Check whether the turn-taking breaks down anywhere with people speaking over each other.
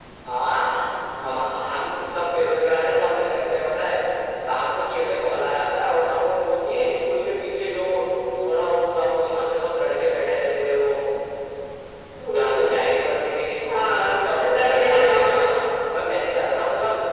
Yes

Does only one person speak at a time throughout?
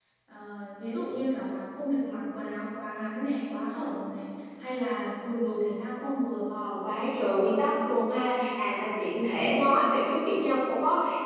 Yes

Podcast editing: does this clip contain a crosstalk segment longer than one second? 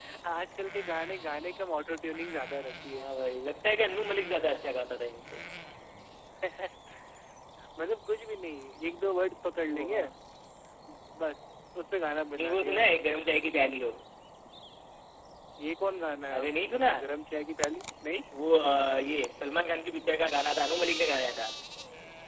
No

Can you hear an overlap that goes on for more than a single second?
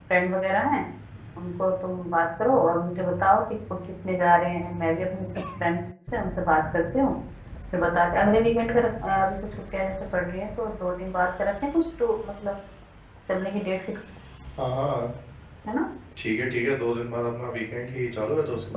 No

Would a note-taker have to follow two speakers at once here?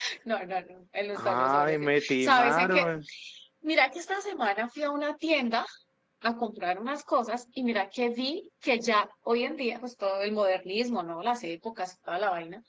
Yes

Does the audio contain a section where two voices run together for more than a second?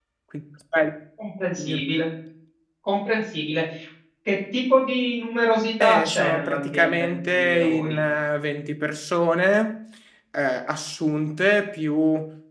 Yes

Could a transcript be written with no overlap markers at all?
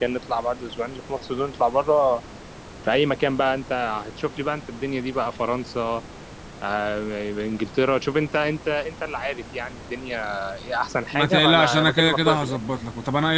No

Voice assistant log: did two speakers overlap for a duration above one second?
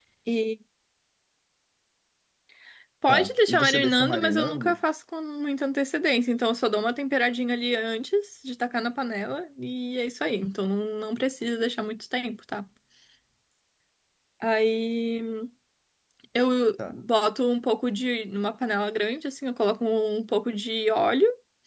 Yes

